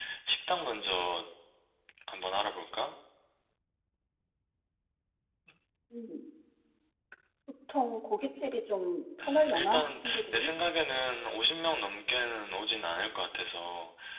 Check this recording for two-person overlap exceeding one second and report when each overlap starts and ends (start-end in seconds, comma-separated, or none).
9.2-10.5